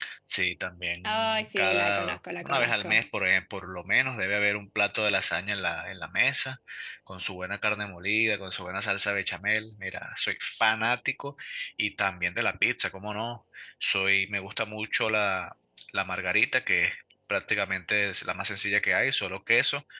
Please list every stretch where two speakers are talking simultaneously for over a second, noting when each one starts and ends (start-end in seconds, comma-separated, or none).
1.0-3.0